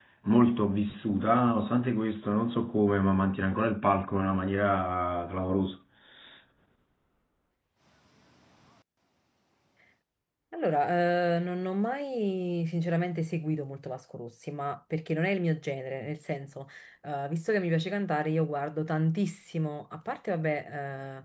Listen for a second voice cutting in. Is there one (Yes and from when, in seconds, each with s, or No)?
No